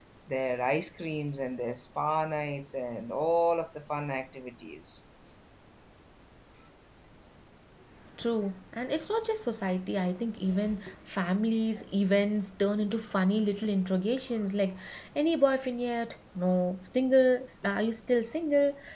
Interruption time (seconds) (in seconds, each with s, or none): none